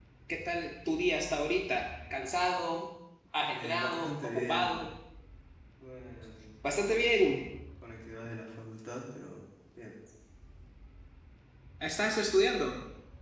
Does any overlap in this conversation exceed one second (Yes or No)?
Yes